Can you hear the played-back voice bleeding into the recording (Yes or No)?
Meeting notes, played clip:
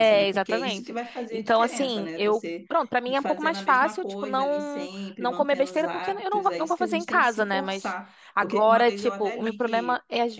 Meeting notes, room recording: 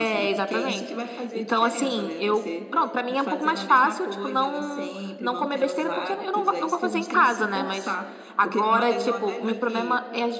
Yes